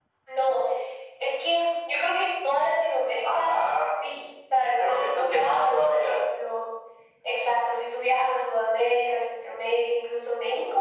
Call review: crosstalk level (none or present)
present